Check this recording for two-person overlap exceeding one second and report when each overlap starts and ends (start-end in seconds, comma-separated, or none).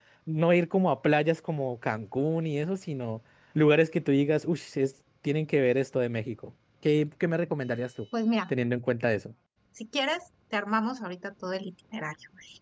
none